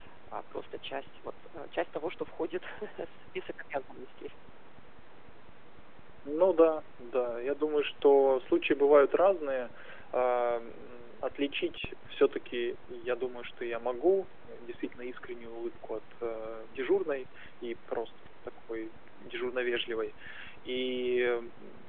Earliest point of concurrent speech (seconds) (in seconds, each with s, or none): none